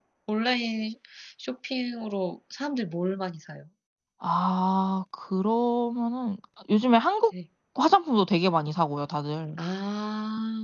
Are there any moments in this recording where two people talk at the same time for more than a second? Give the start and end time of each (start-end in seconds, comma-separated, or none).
none